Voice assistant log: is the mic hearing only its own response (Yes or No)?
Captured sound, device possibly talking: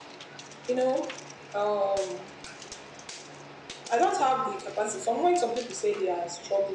Yes